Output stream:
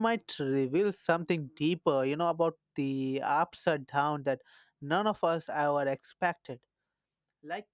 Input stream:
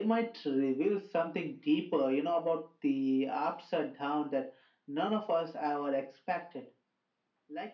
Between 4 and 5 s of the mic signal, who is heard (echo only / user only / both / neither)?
echo only